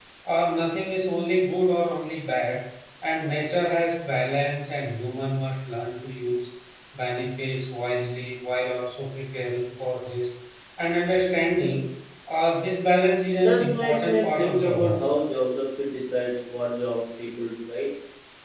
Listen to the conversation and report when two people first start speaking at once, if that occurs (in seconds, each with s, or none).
13.3 s